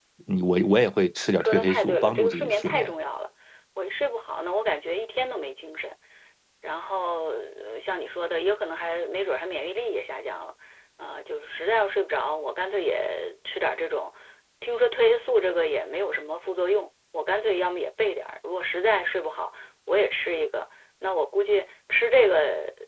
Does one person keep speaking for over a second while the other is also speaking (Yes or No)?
Yes